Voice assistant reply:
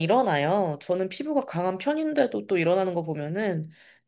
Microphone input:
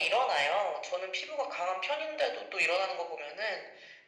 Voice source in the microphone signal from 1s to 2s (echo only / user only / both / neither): echo only